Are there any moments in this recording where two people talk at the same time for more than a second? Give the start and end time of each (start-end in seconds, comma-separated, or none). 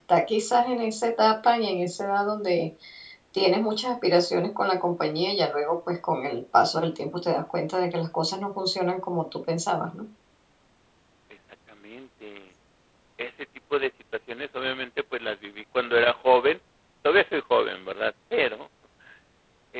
none